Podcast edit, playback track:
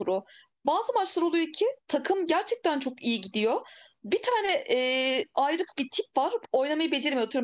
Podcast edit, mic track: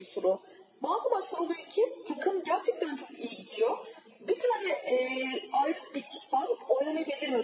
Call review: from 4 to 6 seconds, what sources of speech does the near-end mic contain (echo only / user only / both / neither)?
echo only